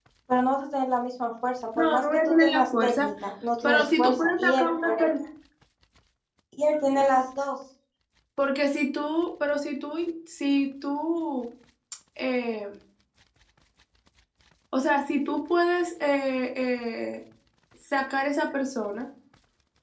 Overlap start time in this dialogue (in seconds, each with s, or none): 1.8 s